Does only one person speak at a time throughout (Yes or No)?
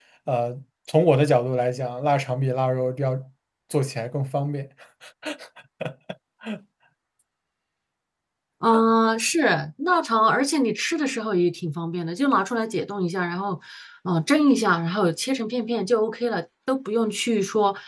Yes